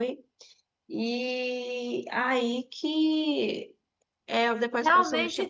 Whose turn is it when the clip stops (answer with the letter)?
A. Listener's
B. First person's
A